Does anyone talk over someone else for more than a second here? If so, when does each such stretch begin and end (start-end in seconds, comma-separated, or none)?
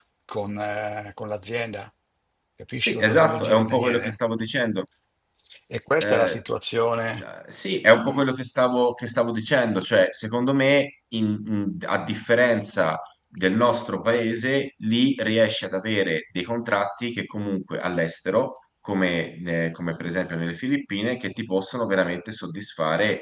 2.9-4.2